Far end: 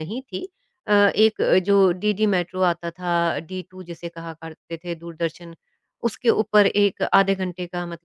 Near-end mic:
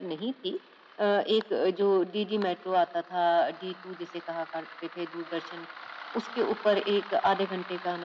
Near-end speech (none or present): none